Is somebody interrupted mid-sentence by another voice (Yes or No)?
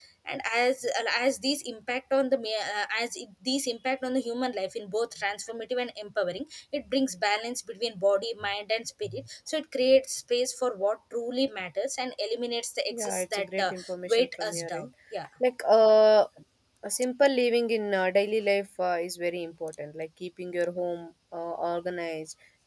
Yes